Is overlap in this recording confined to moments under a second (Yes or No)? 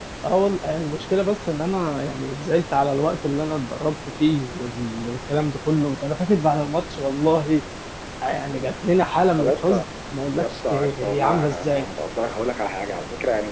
No